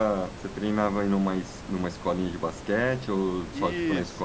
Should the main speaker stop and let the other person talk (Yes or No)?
Yes